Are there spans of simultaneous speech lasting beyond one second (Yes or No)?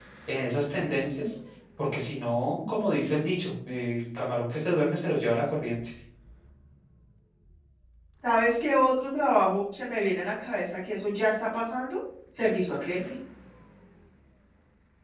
No